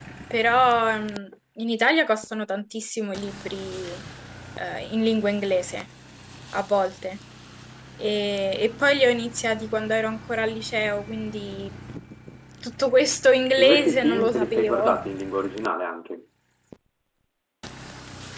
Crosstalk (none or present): present